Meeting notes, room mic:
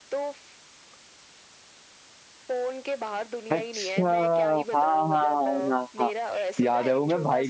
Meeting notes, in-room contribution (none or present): present